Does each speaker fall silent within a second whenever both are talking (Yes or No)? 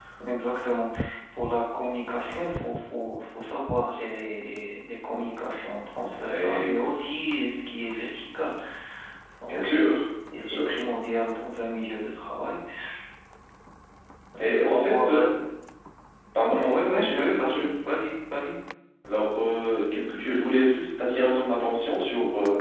No